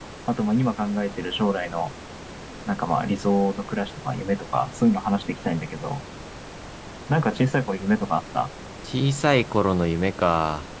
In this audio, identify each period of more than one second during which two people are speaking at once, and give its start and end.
none

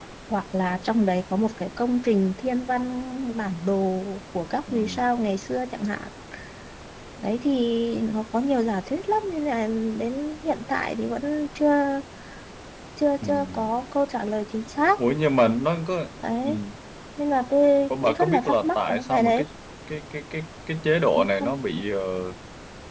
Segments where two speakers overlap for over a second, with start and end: 17.9-19.4

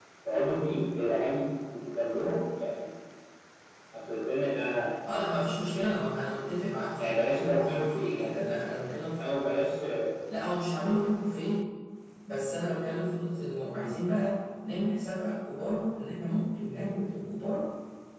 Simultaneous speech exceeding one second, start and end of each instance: 7.0-8.4

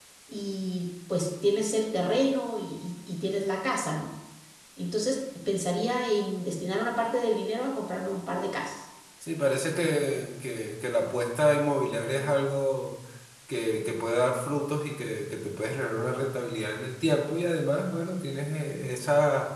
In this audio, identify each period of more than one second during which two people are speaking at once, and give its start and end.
none

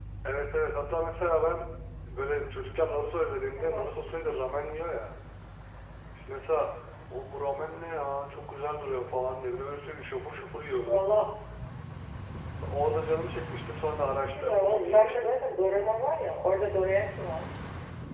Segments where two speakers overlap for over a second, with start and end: 14.1-15.3

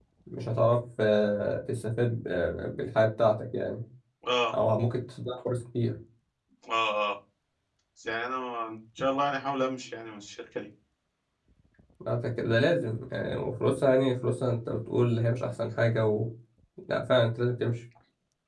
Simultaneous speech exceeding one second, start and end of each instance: none

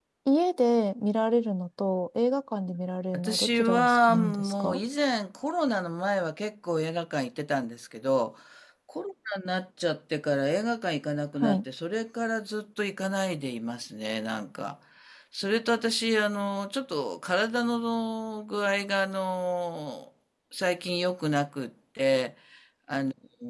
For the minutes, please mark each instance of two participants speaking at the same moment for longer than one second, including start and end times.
3.1-4.8

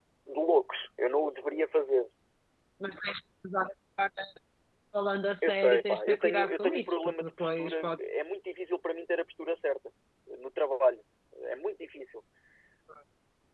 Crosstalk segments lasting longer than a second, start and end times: 5.4-8.0

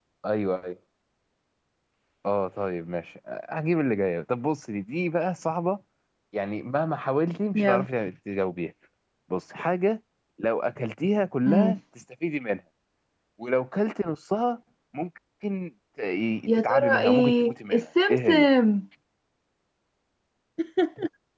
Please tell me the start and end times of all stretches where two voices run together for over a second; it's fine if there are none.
16.5-18.5

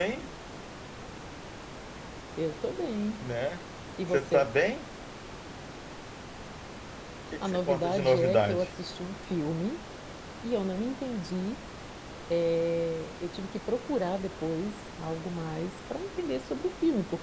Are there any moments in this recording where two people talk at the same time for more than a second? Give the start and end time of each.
7.4-8.7

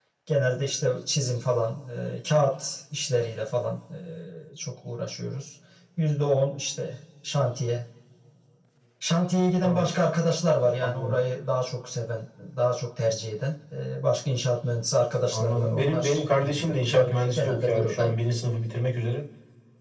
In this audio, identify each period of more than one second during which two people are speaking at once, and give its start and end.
15.3-18.1

